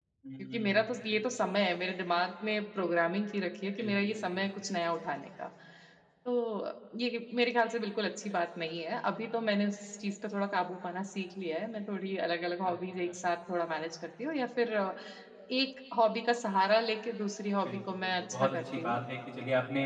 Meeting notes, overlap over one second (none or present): present